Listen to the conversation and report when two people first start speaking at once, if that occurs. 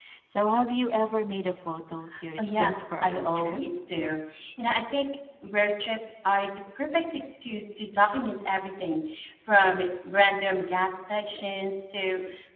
2.4 s

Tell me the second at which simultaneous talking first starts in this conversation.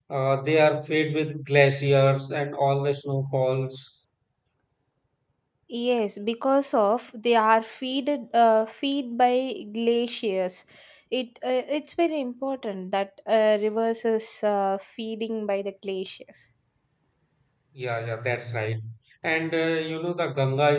none

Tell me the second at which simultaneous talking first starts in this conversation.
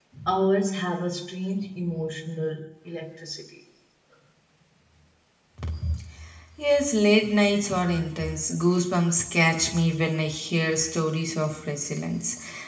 none

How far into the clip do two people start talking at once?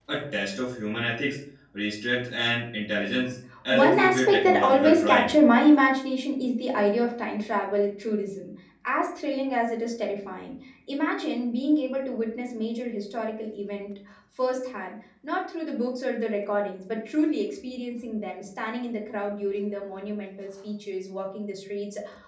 3.7 s

